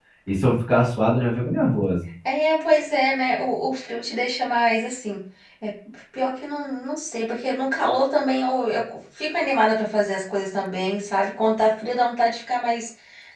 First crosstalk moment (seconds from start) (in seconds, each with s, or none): none